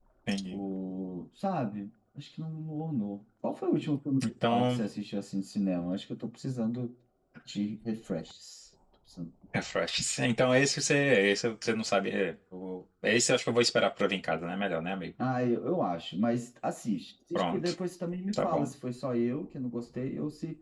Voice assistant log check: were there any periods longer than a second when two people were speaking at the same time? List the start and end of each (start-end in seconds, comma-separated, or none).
none